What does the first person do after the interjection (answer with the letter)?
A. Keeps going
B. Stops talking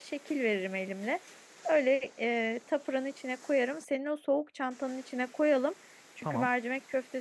A